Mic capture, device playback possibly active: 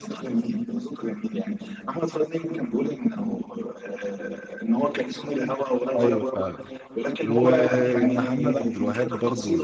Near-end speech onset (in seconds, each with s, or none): 6.0 s